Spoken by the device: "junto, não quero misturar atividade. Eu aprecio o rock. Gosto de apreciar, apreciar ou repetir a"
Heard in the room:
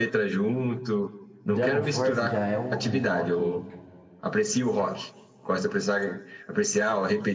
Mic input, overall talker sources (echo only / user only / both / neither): both